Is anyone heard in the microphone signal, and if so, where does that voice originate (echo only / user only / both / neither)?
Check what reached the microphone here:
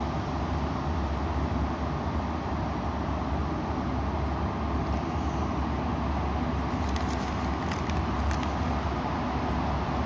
neither